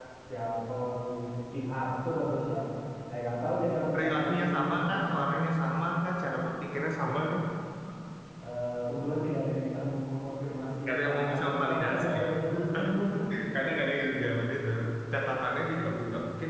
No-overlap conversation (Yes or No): No